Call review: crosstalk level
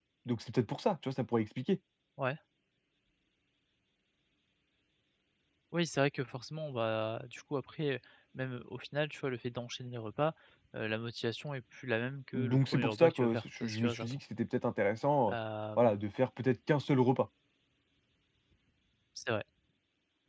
present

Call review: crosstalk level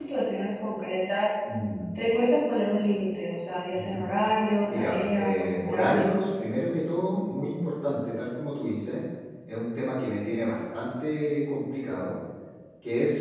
present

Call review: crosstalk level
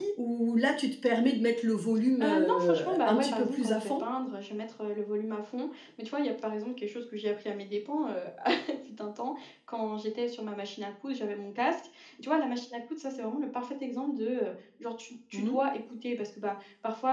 present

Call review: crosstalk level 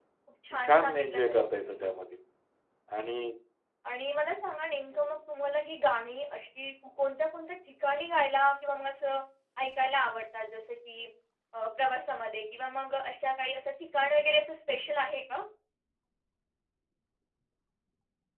present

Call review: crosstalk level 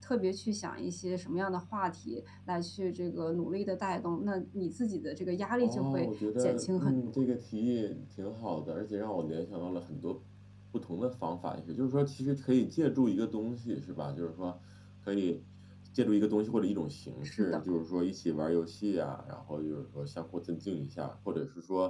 present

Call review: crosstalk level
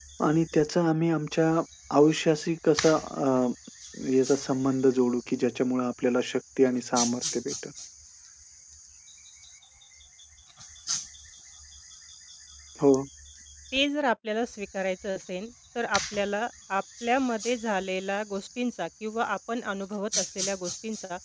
none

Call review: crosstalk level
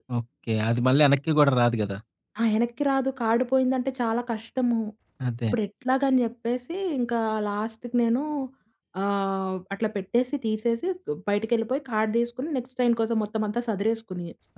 none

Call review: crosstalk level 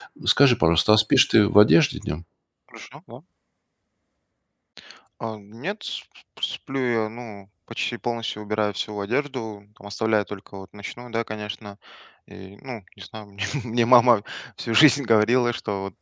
none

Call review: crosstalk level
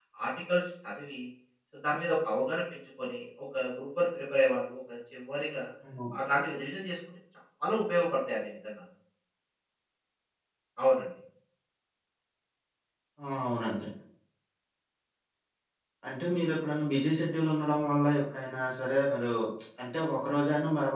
none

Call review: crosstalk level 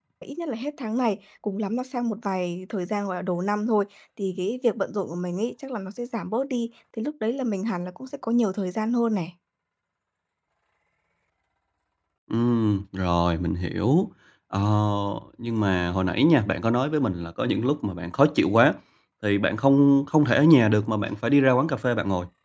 none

